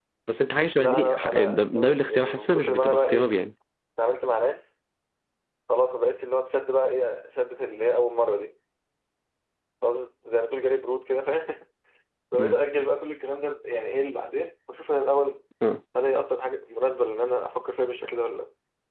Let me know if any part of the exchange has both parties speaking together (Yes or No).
Yes